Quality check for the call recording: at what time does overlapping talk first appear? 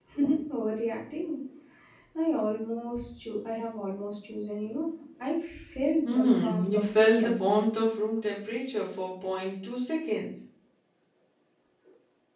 6.0 s

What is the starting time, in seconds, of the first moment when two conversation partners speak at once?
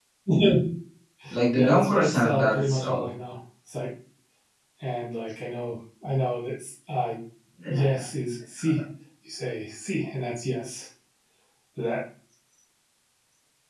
1.6 s

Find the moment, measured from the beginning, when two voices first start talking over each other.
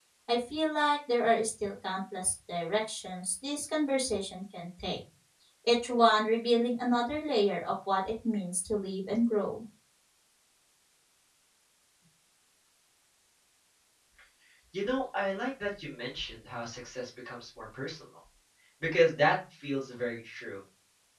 none

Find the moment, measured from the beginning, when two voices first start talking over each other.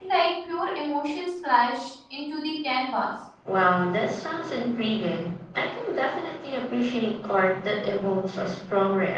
none

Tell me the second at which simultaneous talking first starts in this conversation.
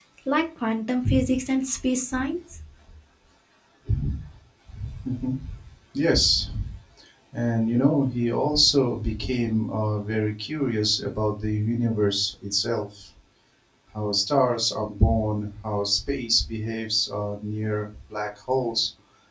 none

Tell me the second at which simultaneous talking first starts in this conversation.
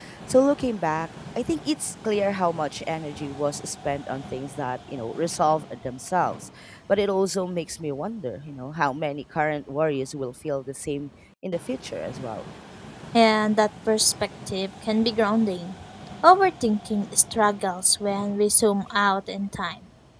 none

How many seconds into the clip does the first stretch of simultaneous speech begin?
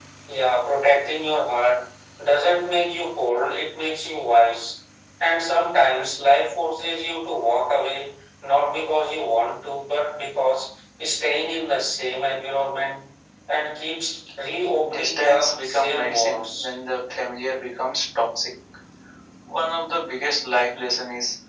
14.8 s

